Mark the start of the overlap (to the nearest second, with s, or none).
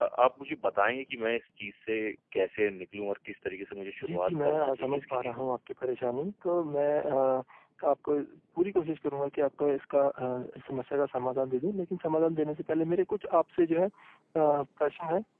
4 s